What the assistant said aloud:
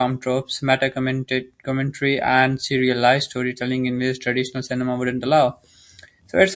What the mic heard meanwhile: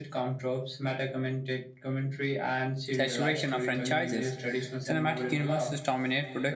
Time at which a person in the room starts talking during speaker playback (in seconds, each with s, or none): 2.9 s